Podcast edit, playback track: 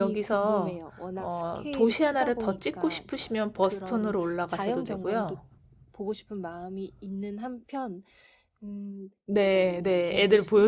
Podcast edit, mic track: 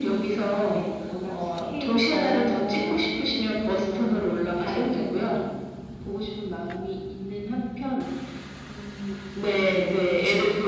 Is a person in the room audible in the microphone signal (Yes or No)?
Yes